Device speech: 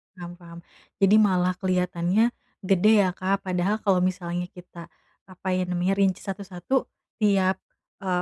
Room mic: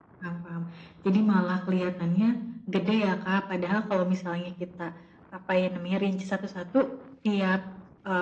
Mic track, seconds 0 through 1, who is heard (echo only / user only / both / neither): echo only